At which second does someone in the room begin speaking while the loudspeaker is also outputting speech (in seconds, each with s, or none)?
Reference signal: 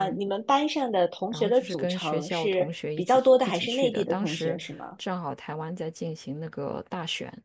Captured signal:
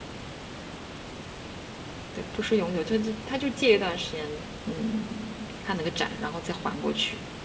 2.1 s